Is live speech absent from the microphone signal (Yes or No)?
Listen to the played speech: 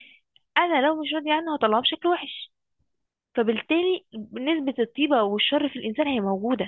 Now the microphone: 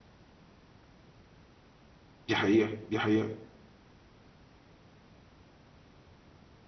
No